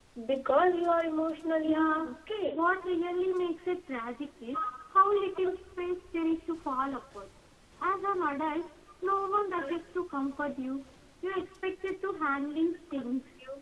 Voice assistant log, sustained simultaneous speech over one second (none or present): none